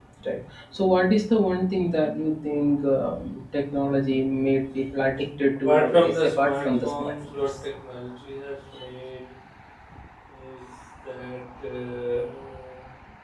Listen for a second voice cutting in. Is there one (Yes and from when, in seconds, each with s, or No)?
Yes, from 5.6 s